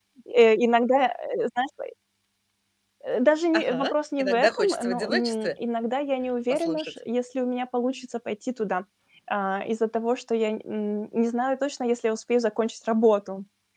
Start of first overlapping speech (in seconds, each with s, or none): 3.5 s